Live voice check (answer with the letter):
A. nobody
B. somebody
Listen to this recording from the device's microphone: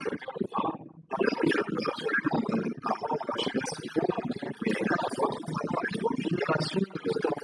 A